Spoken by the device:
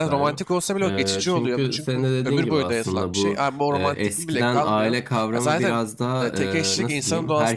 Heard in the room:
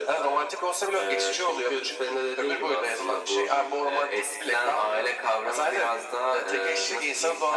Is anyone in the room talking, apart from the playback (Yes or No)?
No